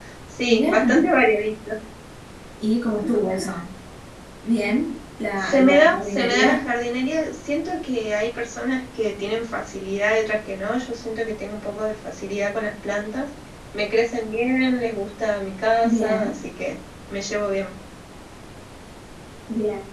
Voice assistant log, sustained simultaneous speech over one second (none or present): present